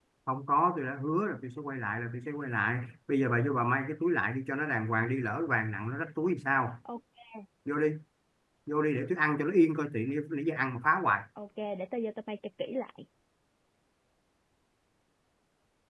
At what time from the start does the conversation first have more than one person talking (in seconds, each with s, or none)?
none